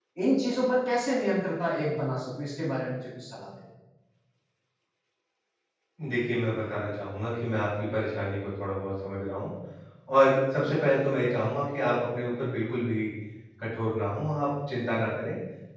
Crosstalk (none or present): none